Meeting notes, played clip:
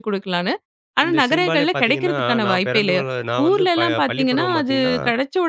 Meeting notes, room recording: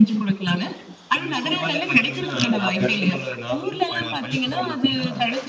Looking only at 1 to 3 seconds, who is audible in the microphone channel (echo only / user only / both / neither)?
echo only